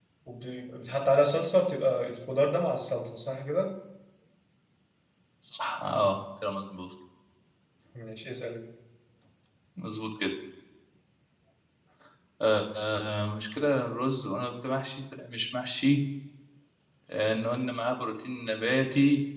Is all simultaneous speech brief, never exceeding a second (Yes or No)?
Yes